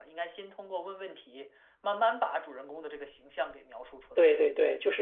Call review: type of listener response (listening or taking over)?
taking over